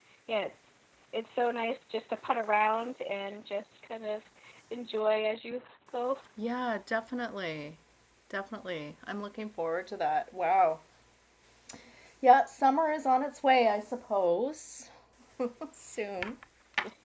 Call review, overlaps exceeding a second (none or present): none